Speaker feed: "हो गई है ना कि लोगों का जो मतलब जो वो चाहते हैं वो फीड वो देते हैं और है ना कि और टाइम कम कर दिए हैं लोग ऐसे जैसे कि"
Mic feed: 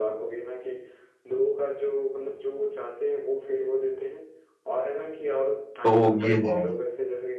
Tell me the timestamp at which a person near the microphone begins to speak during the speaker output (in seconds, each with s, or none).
5.8 s